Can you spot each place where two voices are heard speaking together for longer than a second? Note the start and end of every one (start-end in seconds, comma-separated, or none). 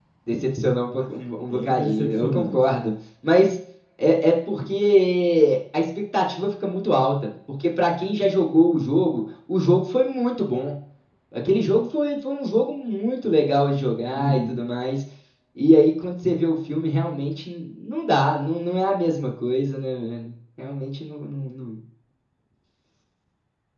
1.0-2.6